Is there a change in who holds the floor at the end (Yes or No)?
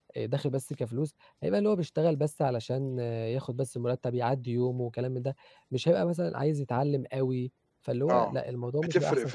Yes